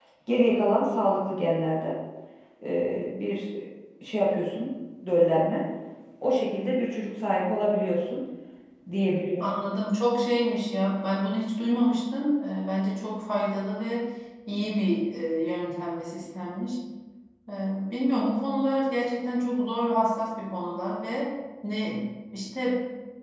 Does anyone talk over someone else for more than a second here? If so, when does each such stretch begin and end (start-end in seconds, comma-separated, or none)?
none